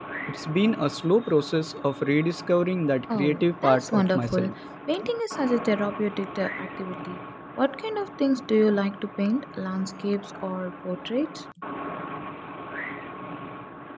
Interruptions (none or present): present